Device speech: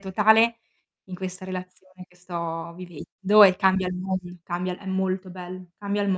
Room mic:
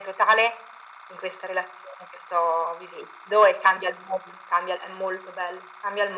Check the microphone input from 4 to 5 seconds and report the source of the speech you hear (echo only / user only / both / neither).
echo only